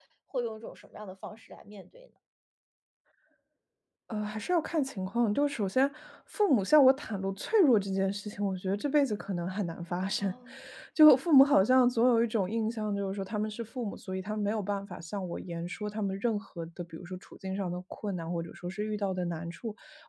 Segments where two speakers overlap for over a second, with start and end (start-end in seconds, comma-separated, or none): none